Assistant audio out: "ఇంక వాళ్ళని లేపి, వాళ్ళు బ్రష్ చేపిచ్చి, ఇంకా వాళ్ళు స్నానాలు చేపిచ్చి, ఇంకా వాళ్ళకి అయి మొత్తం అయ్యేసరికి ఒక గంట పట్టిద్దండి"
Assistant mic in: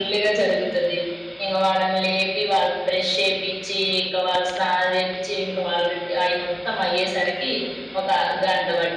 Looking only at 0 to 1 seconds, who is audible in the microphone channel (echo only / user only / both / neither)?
echo only